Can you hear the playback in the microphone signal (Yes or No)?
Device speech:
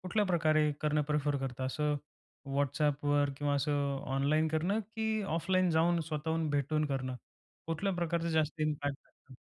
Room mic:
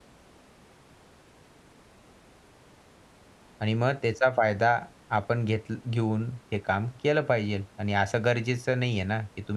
No